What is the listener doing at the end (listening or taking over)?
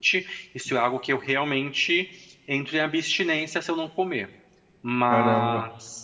listening